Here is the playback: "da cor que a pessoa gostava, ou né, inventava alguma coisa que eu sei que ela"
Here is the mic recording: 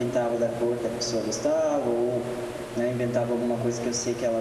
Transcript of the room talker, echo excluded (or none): none